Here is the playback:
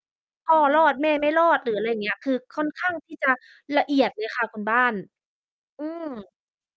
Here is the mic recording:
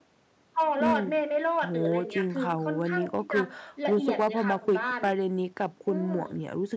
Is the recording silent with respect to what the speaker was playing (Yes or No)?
No